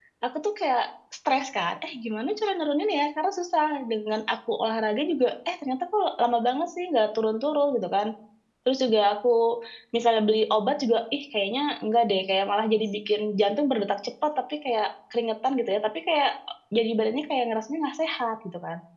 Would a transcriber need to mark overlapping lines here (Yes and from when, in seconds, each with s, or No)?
No